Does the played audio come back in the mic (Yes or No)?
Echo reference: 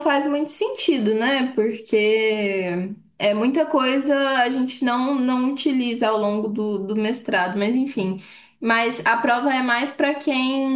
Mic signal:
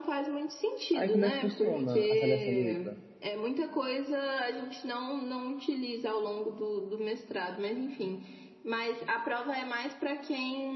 Yes